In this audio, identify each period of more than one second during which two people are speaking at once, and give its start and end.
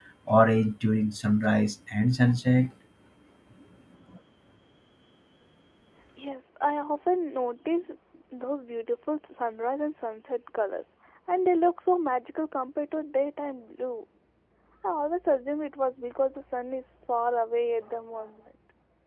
none

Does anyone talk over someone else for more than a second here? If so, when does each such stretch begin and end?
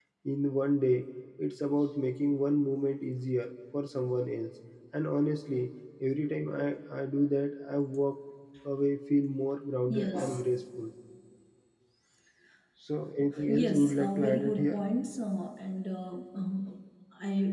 13.5-14.8

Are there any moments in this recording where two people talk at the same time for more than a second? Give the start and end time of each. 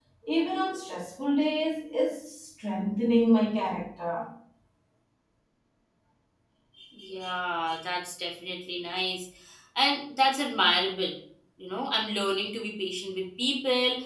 none

